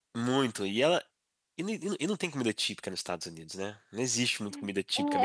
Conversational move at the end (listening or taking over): taking over